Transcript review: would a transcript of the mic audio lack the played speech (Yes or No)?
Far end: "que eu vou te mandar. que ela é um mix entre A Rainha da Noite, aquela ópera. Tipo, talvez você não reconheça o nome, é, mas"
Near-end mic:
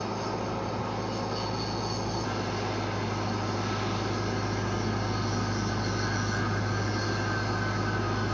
Yes